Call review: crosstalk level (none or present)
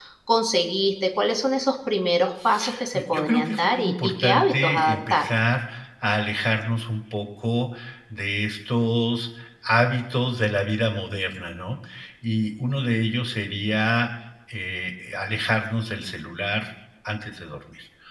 present